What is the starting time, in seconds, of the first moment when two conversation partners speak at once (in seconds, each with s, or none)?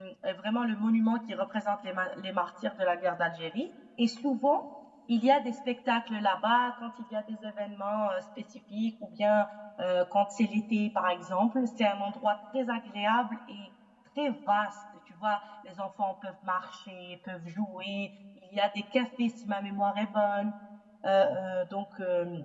none